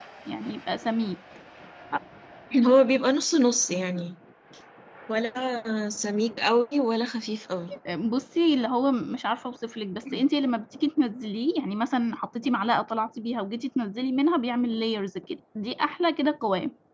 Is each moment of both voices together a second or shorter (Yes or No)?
Yes